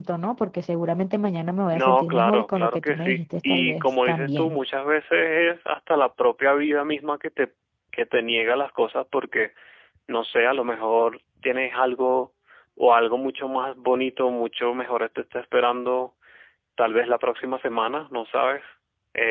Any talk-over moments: Yes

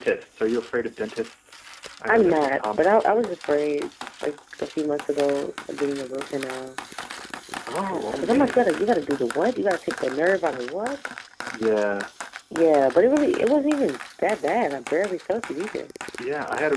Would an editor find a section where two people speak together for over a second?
Yes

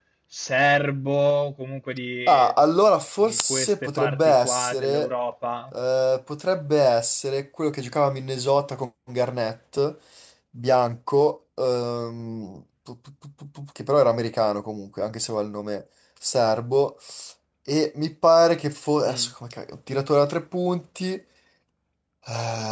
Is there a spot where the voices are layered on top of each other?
Yes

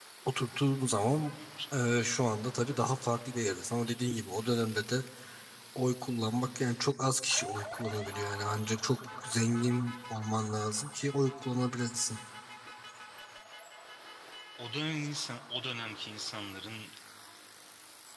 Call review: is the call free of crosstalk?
Yes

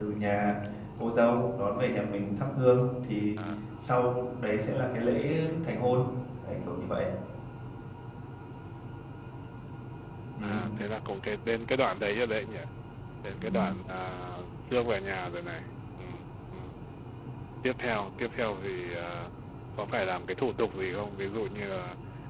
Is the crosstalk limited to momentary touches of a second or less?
Yes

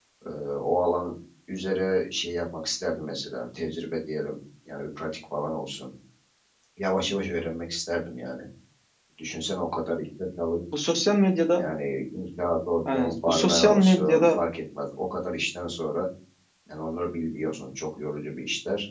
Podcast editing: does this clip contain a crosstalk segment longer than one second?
Yes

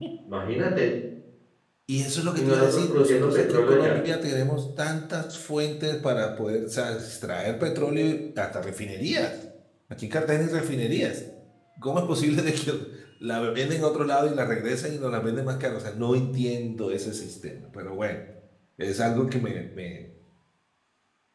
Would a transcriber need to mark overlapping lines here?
Yes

